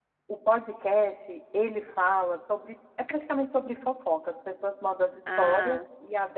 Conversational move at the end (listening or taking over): listening